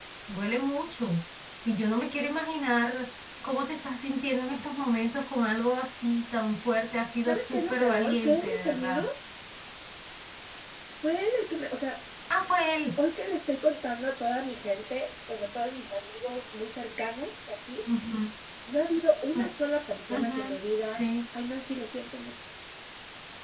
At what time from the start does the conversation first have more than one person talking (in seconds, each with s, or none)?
7.2 s